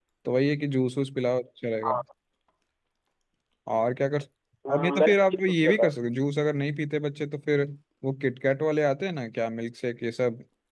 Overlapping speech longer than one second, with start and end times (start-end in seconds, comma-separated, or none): 4.7-5.9